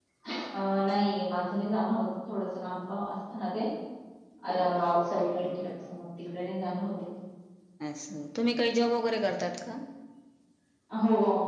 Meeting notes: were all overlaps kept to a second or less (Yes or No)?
Yes